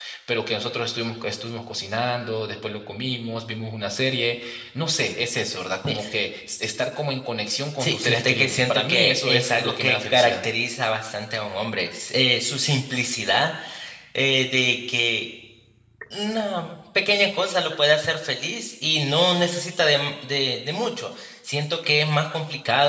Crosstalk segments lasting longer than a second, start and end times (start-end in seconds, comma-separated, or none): 7.8-10.3